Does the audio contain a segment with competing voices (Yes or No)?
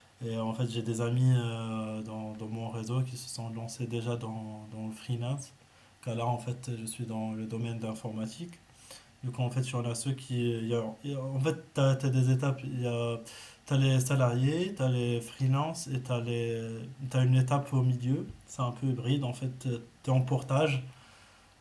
No